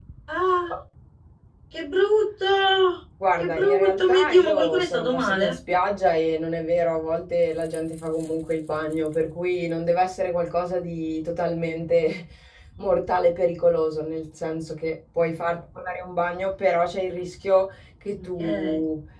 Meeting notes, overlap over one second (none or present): present